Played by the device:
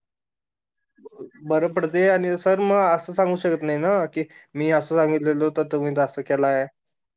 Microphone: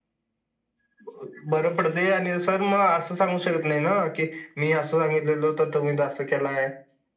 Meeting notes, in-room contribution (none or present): none